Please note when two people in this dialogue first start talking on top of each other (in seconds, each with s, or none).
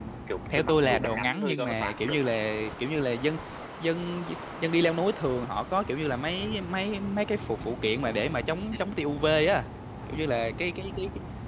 0.6 s